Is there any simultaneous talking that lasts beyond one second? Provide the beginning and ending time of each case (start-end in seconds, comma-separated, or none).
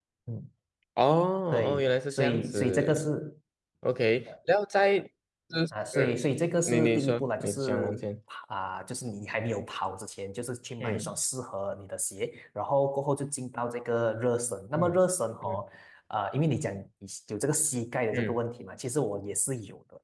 1.7-3.0, 6.7-8.1